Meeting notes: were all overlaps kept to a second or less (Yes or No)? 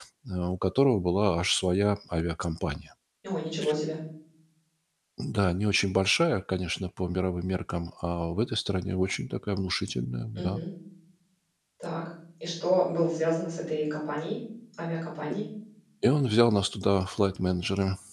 Yes